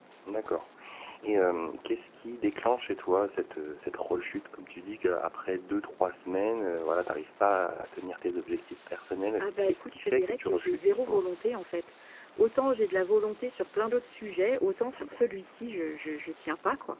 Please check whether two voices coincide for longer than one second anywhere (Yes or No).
Yes